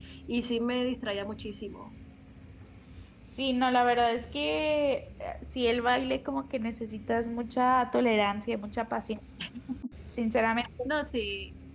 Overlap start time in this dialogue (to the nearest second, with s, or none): none